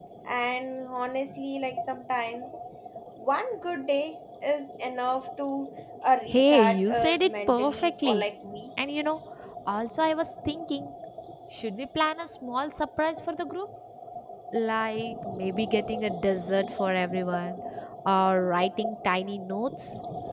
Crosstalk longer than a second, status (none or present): present